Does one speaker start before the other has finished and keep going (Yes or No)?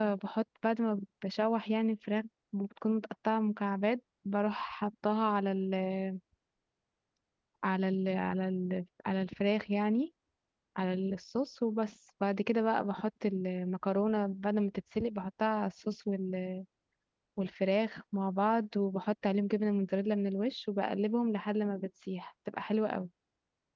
No